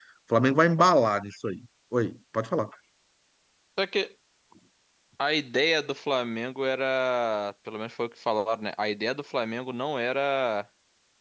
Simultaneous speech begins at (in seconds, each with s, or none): none